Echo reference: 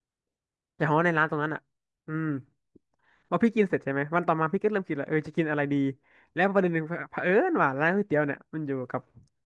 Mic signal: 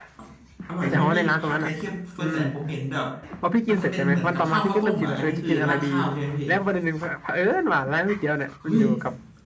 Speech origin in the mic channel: both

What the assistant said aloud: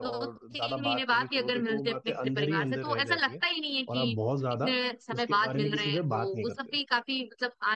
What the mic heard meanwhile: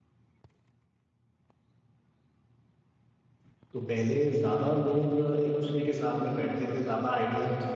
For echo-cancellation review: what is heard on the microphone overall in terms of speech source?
user only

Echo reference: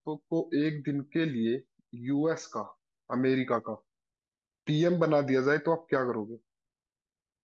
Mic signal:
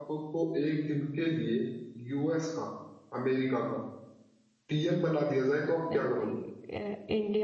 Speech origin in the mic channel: both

